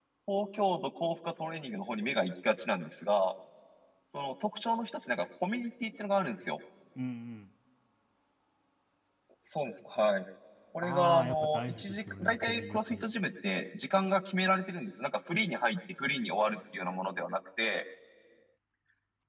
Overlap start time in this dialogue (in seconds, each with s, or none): 10.8 s